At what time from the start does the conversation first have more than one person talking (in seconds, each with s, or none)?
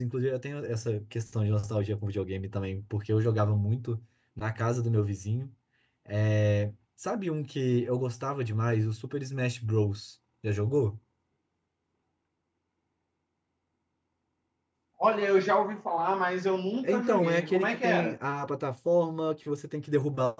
16.8 s